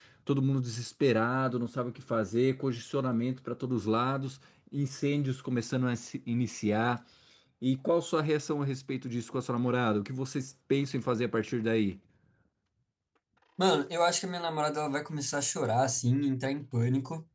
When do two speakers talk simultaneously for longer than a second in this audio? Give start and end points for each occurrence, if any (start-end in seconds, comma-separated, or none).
none